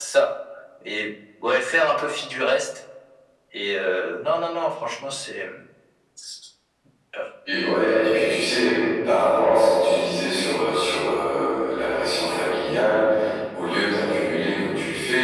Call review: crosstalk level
none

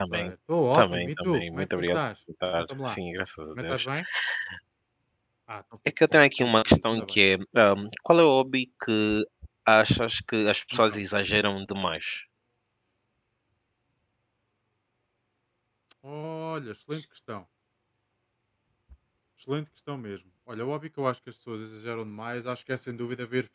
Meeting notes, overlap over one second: present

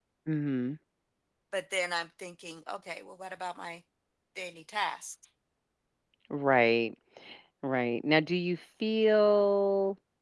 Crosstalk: none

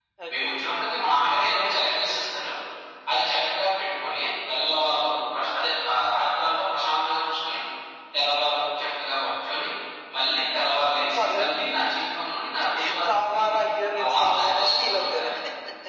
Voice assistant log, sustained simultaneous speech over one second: present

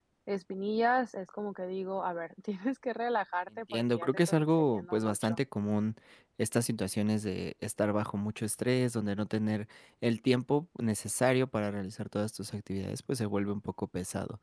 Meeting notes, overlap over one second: present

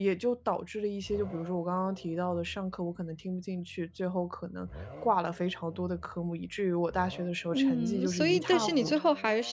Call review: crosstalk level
present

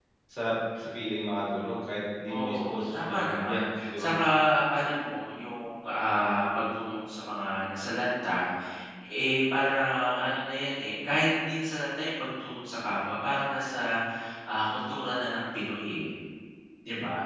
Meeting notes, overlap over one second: present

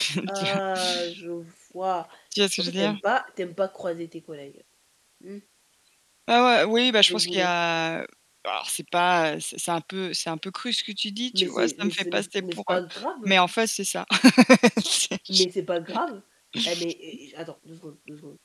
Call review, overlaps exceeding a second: present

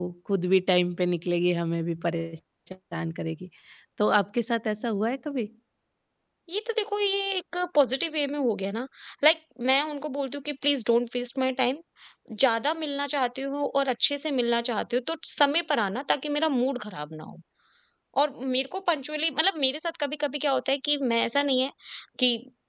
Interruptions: none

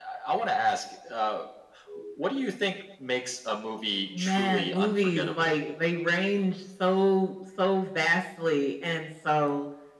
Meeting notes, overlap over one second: present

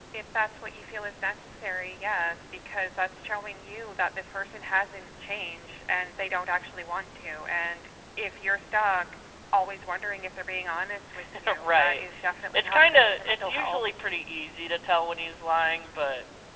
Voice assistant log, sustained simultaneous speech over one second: present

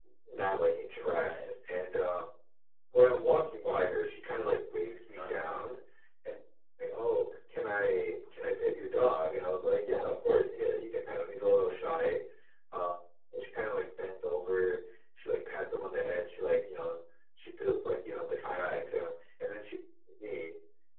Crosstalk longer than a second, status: none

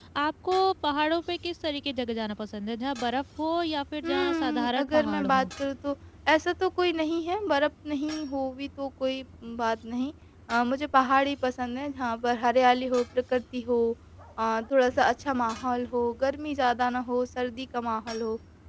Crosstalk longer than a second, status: present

